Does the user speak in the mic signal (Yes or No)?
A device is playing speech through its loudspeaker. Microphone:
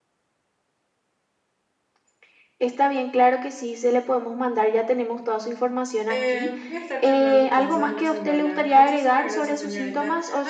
Yes